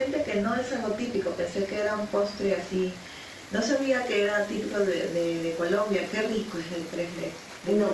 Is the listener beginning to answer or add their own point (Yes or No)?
Yes